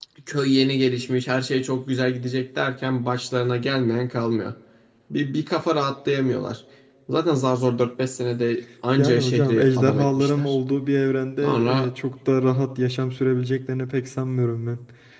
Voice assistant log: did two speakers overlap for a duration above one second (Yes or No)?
Yes